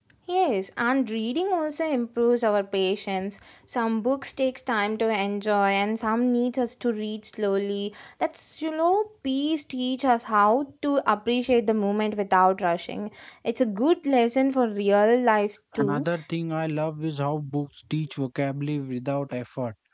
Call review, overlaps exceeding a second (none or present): none